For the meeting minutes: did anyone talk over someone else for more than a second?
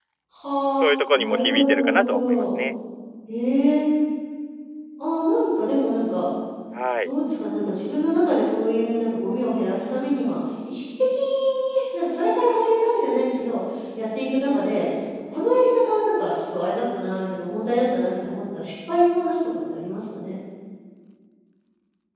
Yes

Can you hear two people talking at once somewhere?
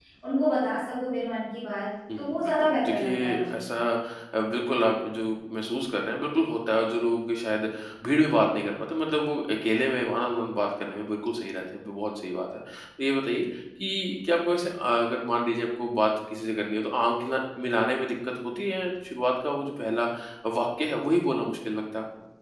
Yes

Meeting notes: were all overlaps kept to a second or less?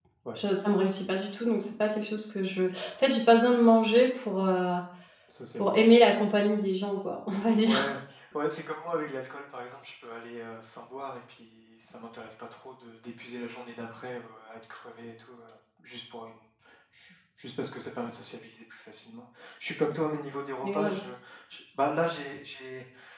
Yes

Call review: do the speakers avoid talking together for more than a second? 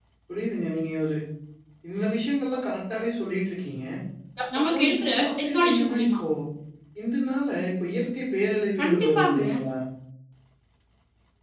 No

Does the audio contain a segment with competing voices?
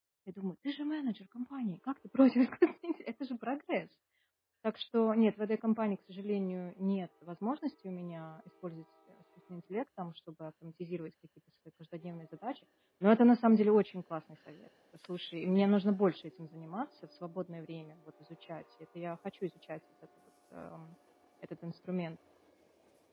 No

